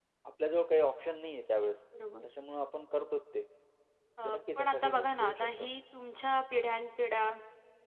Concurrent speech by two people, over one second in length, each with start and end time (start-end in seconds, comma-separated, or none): 4.2-5.7